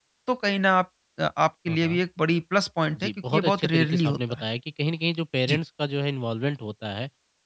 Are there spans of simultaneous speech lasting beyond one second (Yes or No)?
Yes